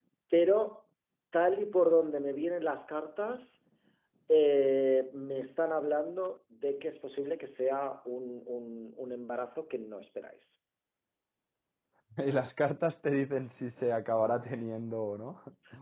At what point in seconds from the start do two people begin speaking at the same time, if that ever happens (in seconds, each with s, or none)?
none